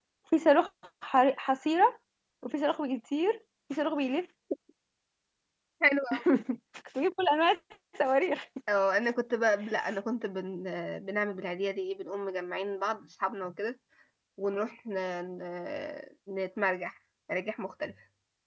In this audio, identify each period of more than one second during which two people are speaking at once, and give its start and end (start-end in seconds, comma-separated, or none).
none